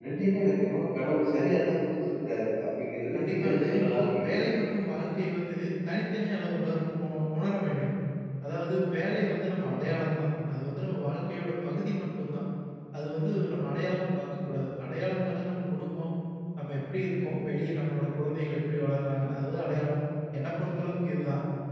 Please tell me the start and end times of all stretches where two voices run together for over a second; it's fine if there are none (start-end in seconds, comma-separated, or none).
3.1-4.6